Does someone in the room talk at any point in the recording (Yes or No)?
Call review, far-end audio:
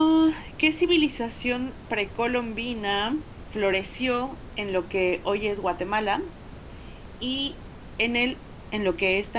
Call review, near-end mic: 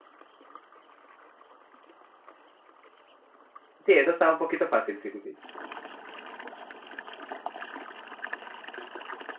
Yes